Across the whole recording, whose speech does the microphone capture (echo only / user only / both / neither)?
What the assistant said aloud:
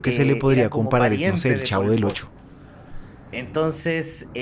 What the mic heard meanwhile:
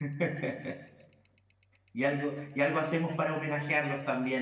user only